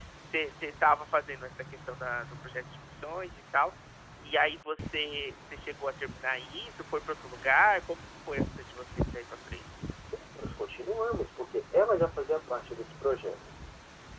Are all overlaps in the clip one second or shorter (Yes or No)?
Yes